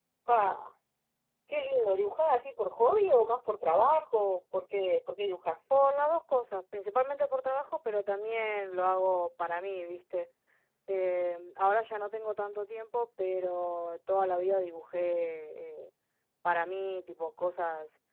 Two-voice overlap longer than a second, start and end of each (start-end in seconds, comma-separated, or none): none